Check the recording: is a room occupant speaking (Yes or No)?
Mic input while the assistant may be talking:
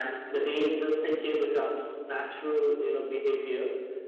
No